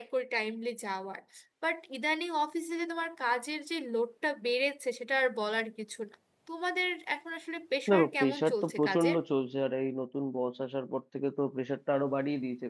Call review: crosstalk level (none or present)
present